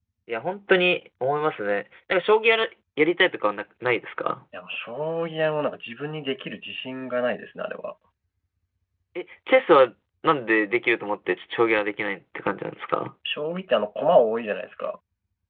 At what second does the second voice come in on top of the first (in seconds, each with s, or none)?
none